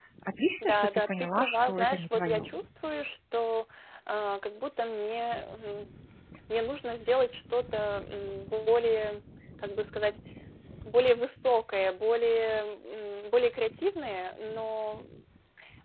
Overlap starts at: 0.6 s

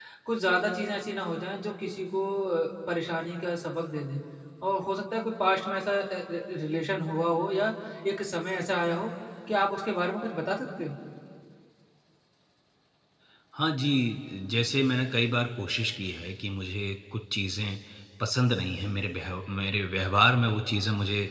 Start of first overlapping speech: none

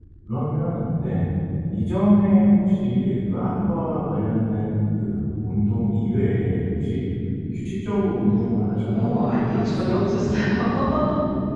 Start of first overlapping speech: 8.9 s

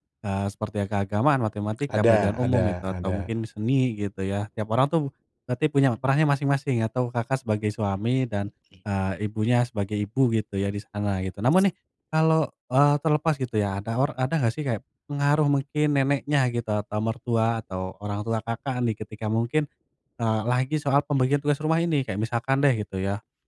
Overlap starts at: 1.9 s

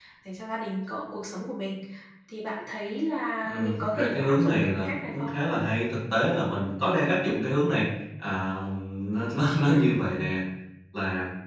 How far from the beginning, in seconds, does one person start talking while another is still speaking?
3.4 s

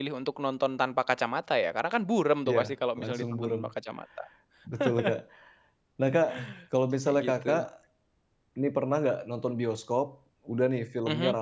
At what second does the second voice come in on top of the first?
2.5 s

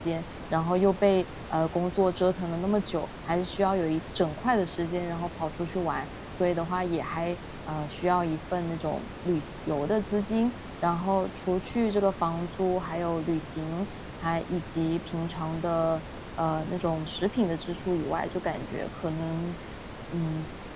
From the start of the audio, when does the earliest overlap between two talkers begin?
none

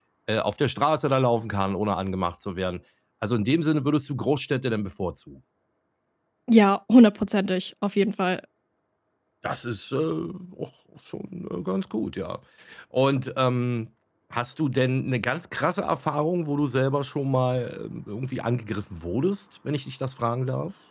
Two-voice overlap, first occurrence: none

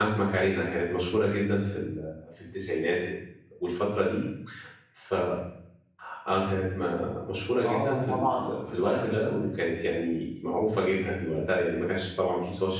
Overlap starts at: 7.6 s

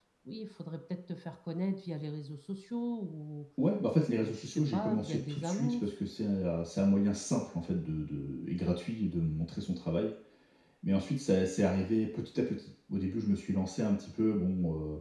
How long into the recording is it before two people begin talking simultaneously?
4.2 s

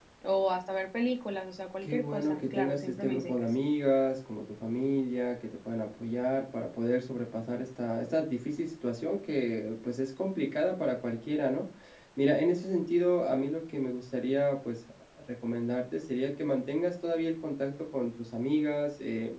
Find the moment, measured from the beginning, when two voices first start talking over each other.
1.8 s

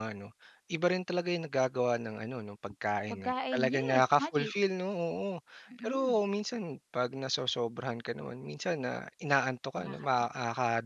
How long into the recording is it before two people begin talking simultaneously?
3.1 s

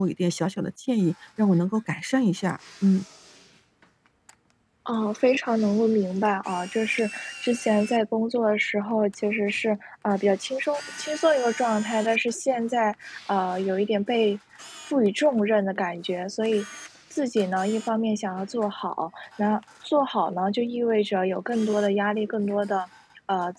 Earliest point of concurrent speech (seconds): none

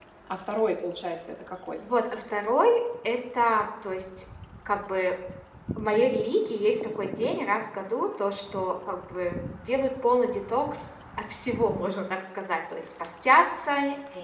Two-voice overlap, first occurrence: none

